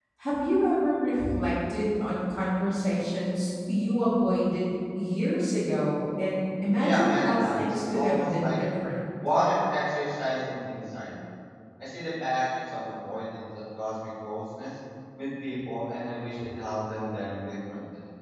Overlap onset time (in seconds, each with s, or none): 6.8 s